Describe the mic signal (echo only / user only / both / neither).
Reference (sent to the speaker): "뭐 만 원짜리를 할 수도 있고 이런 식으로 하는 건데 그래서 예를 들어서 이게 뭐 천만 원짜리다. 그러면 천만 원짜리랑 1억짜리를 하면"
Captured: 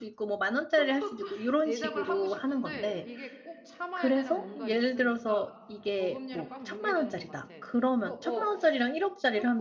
both